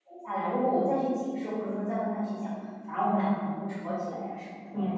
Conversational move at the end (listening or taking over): taking over